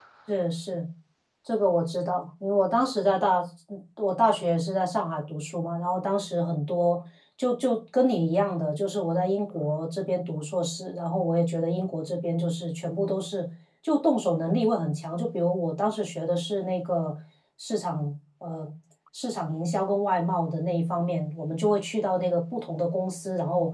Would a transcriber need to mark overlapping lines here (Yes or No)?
No